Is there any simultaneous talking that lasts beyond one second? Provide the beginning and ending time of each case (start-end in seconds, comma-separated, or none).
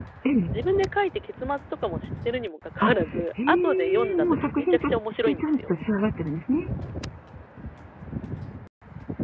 3.5-5.7